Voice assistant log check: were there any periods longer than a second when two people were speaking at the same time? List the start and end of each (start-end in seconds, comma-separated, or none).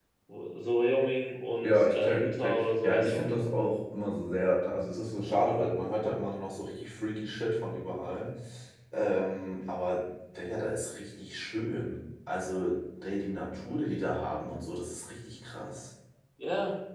1.6-3.3